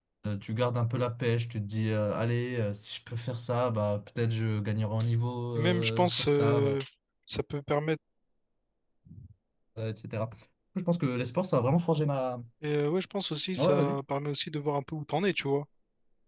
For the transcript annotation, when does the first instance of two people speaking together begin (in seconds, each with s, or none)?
5.6 s